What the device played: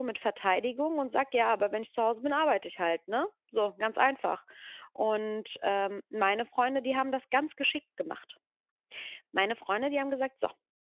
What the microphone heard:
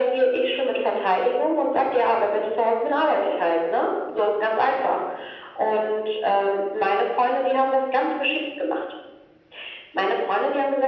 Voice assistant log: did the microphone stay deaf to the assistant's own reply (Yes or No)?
No